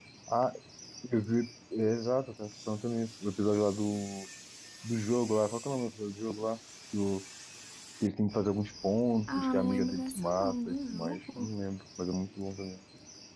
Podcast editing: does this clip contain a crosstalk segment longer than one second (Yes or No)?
Yes